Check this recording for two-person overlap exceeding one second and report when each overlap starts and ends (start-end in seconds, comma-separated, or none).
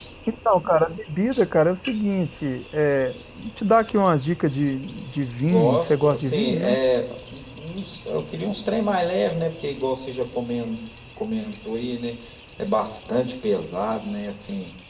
5.5-6.8